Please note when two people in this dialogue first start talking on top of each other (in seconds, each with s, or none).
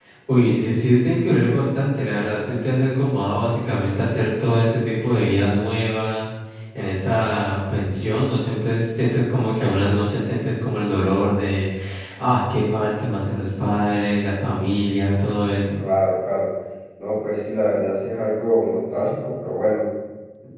none